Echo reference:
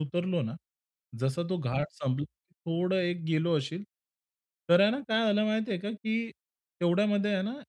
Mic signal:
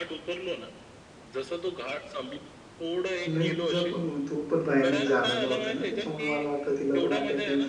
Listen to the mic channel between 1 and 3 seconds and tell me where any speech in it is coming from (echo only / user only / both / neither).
echo only